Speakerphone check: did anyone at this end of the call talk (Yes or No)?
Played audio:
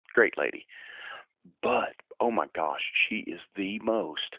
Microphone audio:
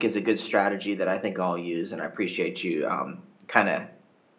Yes